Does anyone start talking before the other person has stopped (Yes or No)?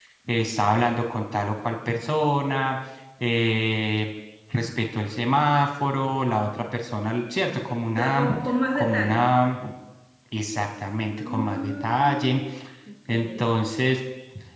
Yes